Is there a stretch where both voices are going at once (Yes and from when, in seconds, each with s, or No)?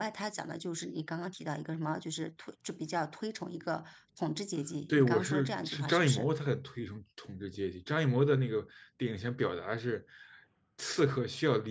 Yes, from 4.9 s